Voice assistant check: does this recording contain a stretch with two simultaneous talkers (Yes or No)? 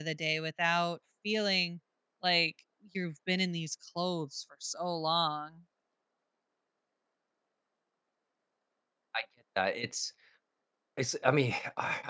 No